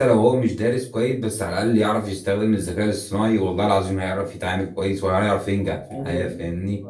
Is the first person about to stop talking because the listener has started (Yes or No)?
Yes